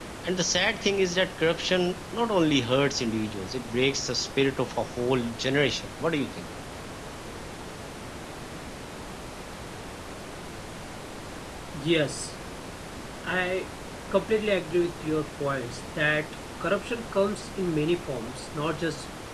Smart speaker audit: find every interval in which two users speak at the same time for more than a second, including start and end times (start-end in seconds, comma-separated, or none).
none